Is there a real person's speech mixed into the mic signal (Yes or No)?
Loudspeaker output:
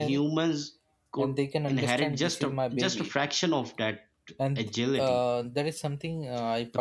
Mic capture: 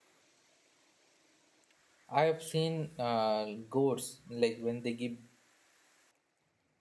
Yes